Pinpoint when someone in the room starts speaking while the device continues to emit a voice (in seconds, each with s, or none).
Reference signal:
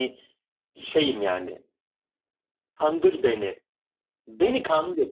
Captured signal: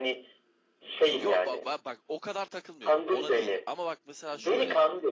1.1 s